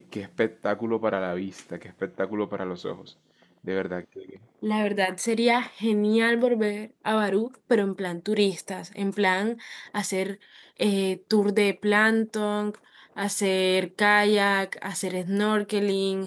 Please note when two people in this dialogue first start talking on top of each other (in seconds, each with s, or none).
none